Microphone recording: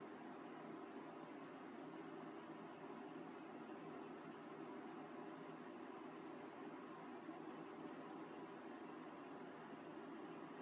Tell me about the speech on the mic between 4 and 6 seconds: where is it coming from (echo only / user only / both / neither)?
neither